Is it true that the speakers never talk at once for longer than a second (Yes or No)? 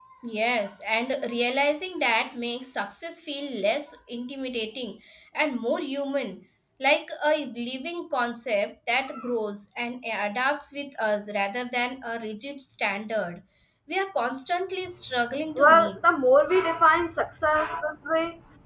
Yes